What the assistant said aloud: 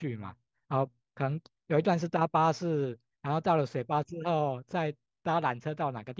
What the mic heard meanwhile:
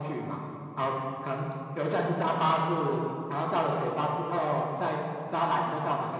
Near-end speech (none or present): none